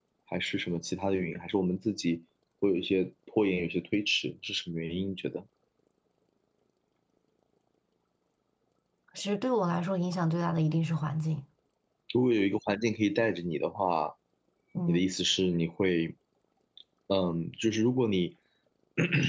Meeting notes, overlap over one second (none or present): none